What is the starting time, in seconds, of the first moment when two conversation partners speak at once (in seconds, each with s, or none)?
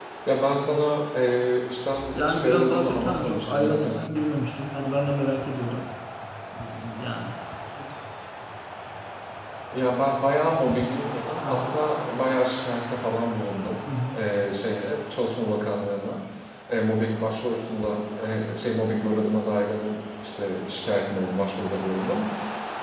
2.1 s